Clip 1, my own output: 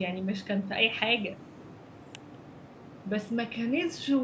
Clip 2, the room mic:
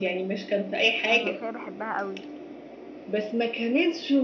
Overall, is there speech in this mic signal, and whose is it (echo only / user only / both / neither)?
both